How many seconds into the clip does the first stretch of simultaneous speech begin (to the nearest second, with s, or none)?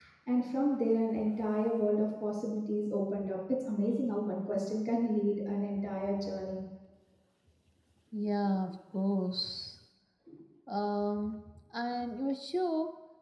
none